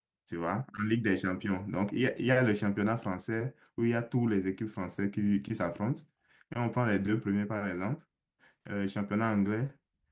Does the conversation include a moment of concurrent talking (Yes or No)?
No